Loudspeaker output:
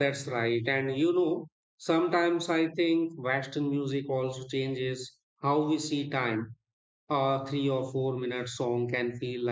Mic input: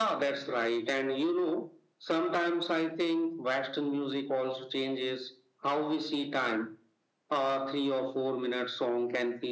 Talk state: echo only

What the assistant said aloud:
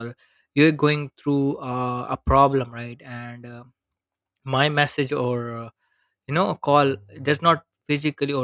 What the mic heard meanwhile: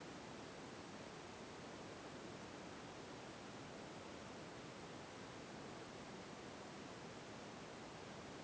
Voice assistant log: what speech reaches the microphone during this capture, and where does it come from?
neither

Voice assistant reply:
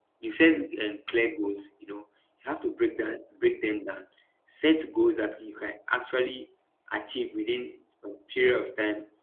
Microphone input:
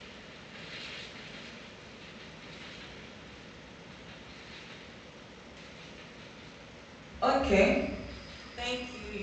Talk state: user only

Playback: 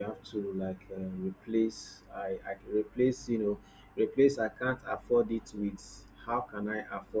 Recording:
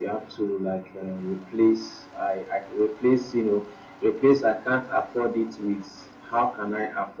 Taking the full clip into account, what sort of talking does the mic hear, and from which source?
echo only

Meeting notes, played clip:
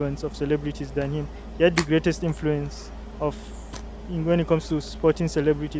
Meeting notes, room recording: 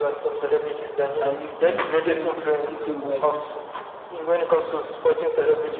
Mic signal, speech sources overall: both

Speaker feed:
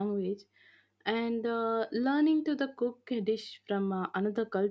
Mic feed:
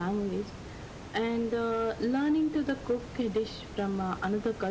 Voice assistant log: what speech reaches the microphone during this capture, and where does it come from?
echo only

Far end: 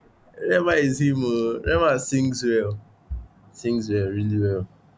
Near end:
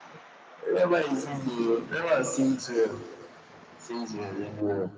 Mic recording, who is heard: echo only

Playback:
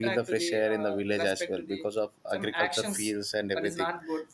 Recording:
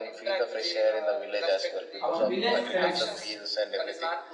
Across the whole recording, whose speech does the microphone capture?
both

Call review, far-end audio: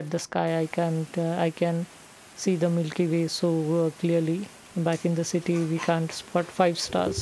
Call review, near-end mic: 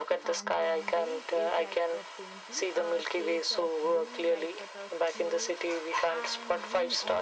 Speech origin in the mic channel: both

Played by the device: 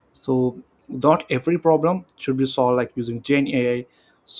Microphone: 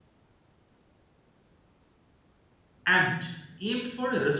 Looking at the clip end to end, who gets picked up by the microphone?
user only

